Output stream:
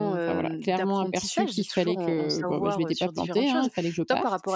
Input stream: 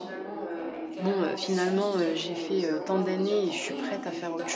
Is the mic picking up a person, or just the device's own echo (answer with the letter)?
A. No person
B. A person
B